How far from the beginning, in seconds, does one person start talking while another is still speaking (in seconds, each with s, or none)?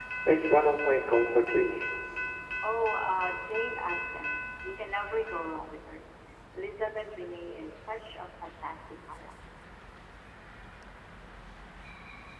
none